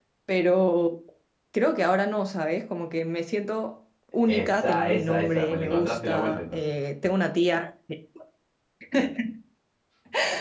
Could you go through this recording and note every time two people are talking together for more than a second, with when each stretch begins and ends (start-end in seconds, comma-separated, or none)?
4.2-6.6